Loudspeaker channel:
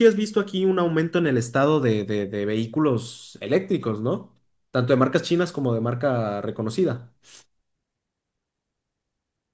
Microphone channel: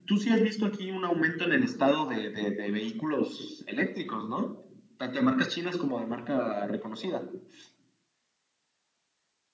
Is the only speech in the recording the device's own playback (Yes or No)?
Yes